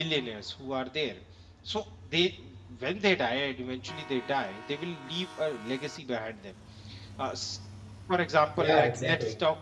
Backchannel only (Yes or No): Yes